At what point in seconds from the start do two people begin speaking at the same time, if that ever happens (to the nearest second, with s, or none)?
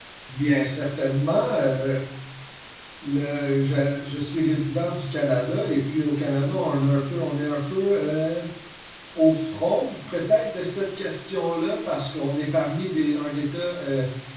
none